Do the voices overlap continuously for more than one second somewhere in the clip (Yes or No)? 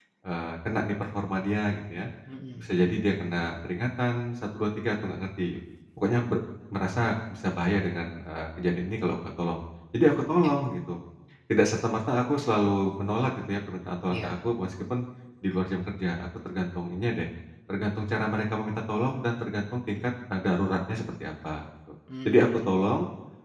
No